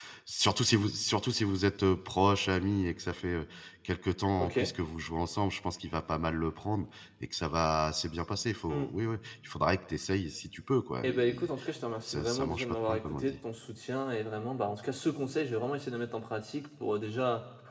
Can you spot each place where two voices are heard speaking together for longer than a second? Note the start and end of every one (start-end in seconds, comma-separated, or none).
12.1-13.3